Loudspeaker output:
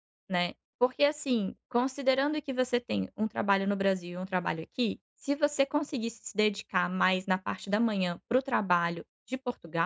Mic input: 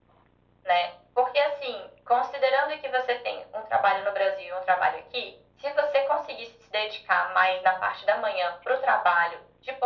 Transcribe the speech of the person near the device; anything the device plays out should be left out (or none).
none